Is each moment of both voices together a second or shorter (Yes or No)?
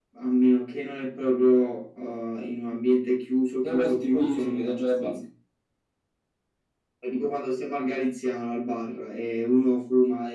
No